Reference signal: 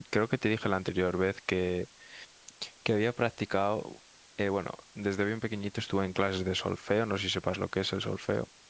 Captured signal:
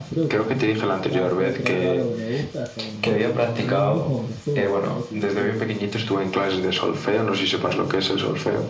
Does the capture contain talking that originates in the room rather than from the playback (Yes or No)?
Yes